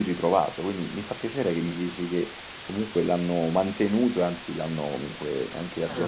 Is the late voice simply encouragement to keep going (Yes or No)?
No